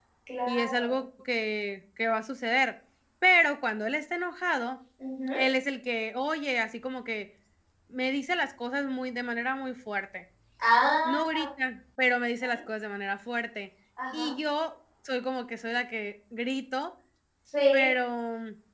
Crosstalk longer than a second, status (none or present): none